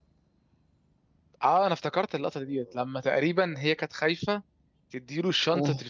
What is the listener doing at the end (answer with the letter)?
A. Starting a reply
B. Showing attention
B